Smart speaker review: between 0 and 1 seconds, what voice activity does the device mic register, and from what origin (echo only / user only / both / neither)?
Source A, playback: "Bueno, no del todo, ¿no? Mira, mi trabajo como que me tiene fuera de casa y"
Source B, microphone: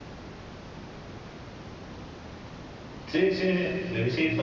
neither